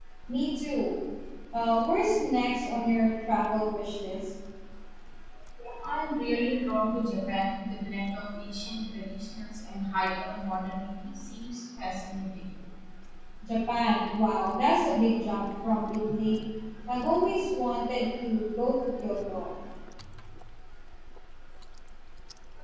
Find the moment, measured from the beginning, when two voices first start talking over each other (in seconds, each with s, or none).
none